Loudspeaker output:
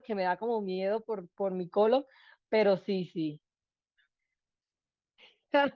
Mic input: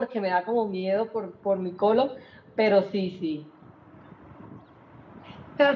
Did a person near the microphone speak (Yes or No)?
No